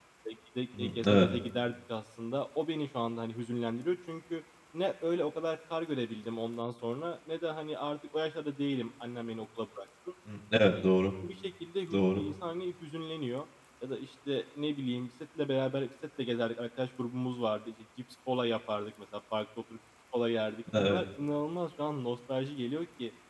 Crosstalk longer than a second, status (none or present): none